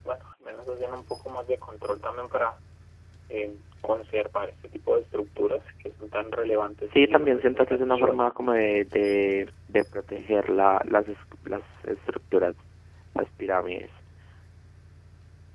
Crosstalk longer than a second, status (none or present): present